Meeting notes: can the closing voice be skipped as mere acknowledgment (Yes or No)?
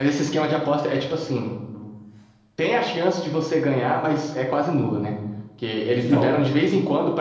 Yes